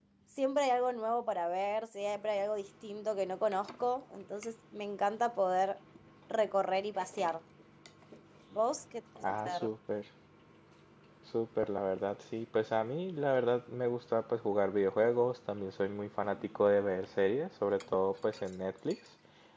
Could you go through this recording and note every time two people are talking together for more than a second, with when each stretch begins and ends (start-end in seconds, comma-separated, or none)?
none